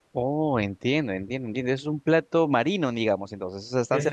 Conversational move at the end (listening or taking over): taking over